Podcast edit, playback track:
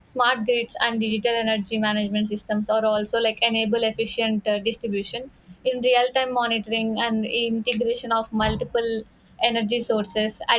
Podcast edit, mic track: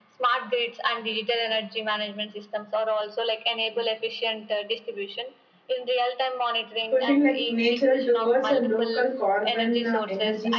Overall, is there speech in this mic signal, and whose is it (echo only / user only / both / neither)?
both